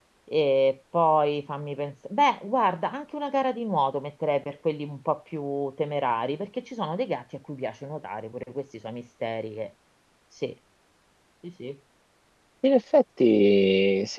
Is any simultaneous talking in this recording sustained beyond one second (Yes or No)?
No